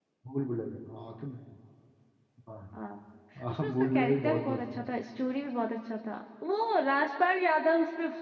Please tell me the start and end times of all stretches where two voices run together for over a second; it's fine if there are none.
3.5-4.8

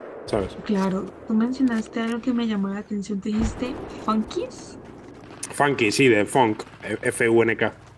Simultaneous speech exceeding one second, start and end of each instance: none

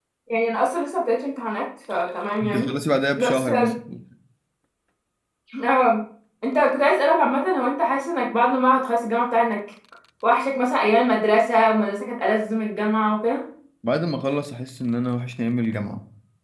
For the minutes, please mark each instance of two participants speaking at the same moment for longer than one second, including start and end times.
none

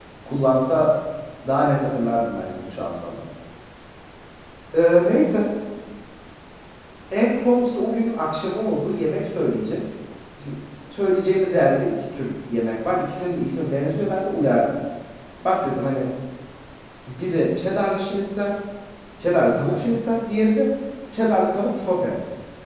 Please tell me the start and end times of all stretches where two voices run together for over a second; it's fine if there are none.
none

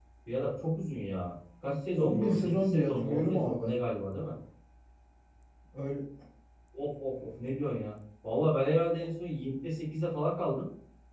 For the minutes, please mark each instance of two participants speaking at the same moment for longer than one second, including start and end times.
2.0-3.7

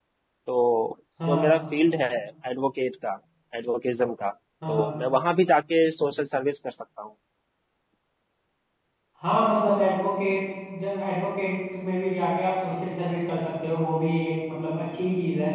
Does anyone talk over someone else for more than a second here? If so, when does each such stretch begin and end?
none

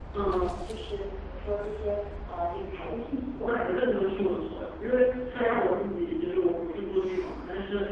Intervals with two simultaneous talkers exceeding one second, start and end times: none

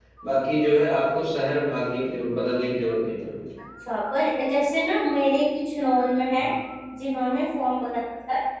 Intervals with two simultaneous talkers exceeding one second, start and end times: none

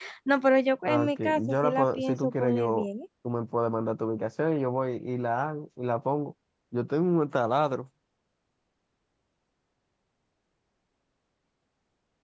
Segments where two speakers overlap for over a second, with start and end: 0.8-2.9

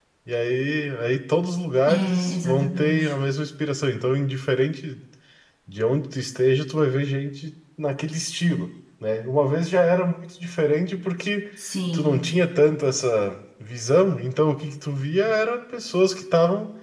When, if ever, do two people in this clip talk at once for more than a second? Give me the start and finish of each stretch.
1.9-3.1

